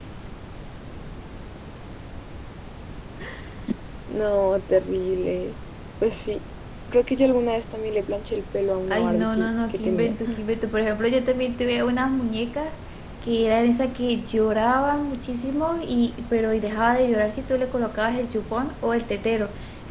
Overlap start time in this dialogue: 8.9 s

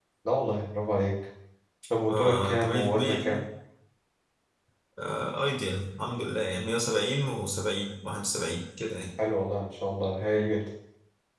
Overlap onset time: 2.1 s

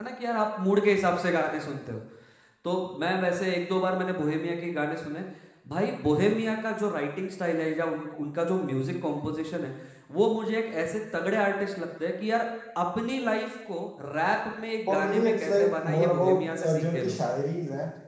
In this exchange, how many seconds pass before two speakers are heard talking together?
14.9 s

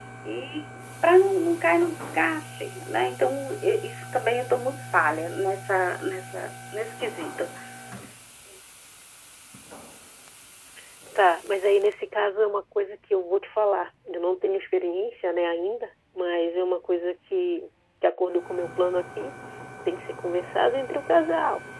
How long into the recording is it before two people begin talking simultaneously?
none

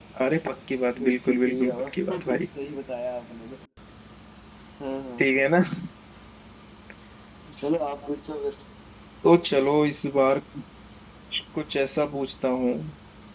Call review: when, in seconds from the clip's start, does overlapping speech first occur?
1.0 s

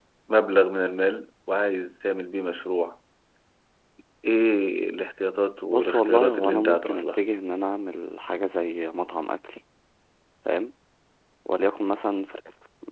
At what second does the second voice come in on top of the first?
5.7 s

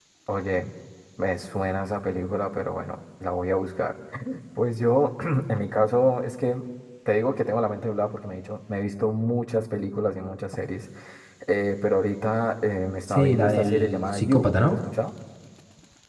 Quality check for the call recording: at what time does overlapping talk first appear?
13.1 s

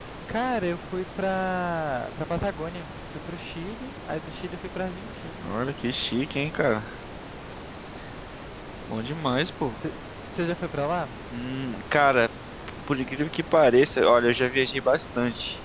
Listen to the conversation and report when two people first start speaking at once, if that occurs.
none

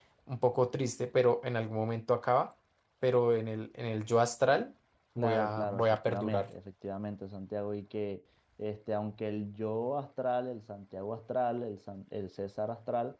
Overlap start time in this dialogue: 5.2 s

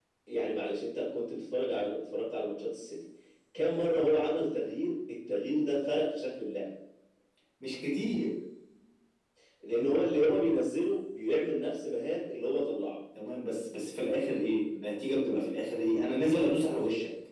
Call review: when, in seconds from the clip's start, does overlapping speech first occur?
none

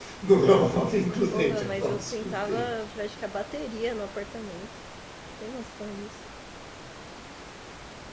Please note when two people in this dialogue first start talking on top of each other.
1.3 s

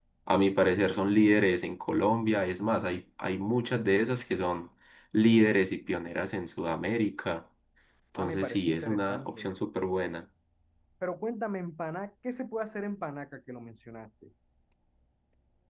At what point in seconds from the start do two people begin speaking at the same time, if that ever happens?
8.2 s

